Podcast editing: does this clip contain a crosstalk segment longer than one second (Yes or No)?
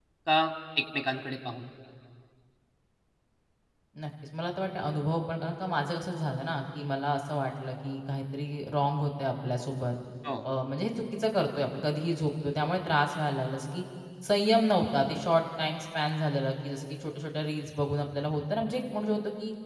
No